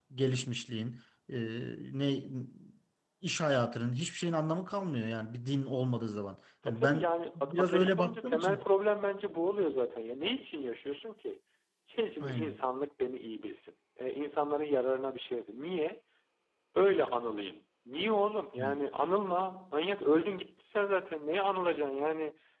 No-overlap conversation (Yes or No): No